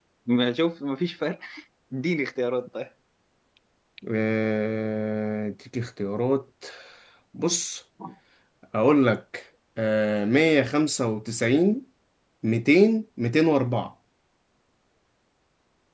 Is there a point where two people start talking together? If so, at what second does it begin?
none

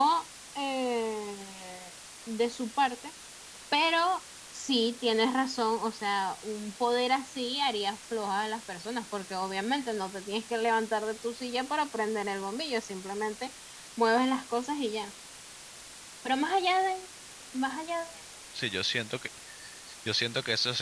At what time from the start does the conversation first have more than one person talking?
none

